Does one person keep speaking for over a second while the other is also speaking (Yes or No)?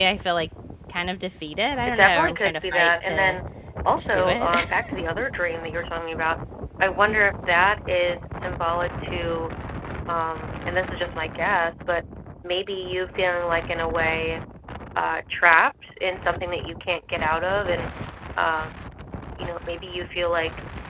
Yes